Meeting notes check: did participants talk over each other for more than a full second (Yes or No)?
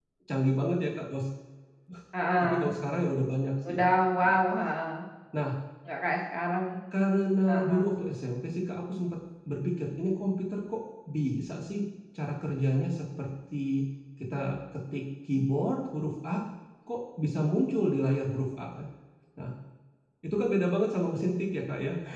No